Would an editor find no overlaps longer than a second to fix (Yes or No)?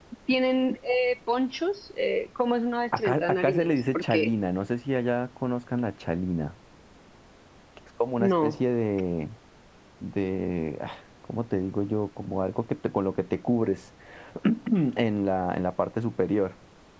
No